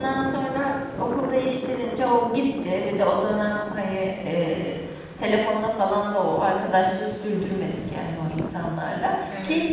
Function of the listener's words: listening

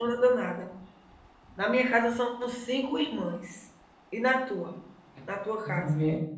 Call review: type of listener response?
taking over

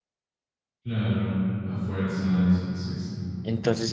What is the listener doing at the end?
taking over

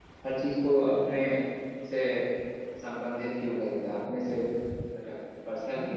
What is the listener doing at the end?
taking over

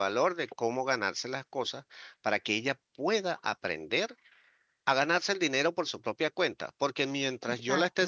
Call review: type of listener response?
listening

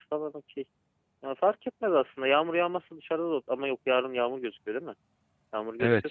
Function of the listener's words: taking over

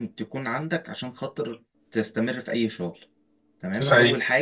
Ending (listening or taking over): listening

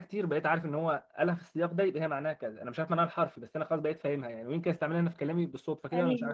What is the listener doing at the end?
listening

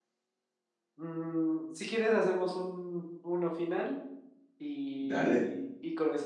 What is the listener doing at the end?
listening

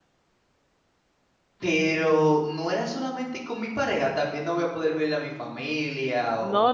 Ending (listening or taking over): taking over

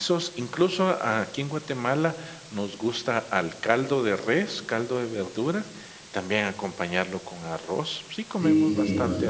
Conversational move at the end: taking over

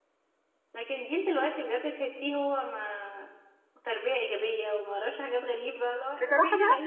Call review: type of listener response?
taking over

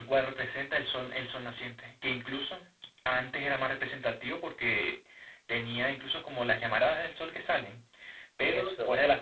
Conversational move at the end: listening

